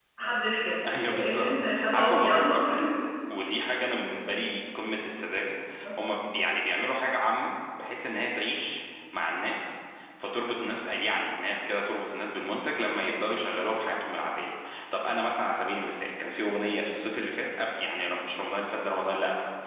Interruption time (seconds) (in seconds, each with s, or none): 1.1 s